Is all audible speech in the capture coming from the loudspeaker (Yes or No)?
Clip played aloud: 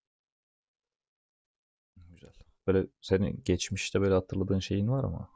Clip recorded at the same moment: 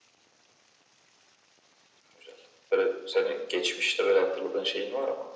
Yes